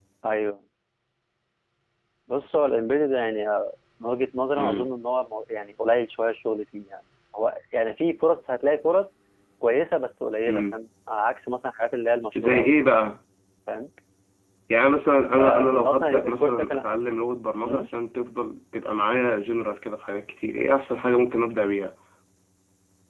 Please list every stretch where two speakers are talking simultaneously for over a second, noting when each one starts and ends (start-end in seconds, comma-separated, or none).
15.4-16.8